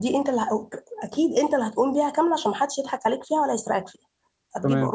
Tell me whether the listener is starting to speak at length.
No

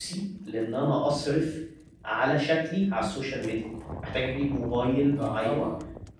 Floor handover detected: No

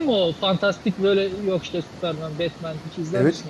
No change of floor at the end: No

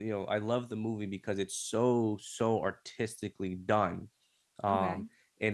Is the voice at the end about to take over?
No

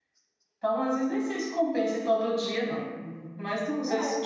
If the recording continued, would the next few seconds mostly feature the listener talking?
Yes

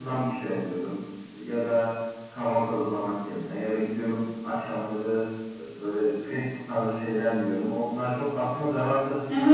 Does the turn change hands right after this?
Yes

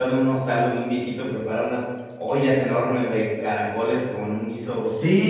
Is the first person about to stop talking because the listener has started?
Yes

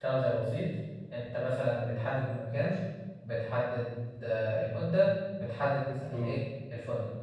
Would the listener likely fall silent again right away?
Yes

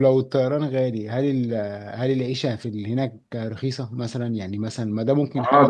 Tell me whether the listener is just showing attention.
No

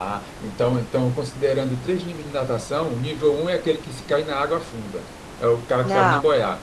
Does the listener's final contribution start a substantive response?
No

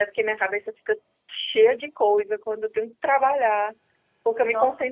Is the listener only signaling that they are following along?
Yes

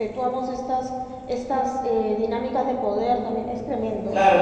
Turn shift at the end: Yes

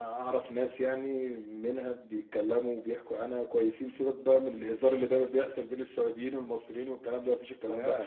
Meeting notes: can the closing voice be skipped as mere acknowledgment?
Yes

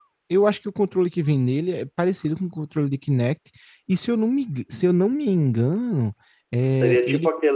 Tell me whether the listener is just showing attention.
No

